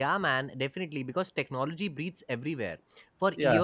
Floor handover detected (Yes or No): No